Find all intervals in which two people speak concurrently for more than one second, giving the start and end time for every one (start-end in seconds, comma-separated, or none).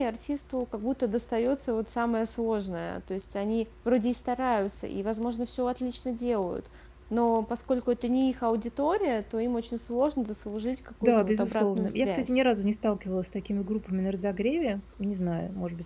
11.0-12.3